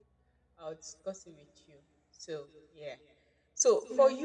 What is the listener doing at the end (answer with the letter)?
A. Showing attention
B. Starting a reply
A